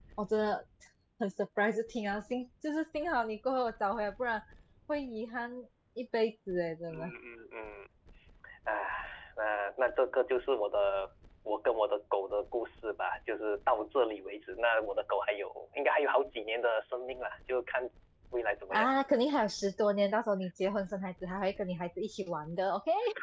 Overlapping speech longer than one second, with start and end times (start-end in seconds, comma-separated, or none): none